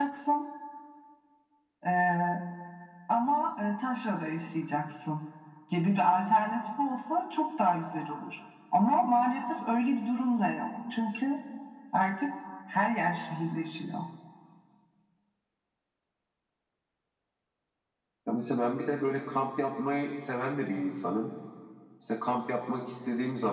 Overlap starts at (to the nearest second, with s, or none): none